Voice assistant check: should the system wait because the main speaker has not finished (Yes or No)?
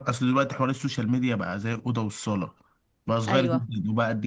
Yes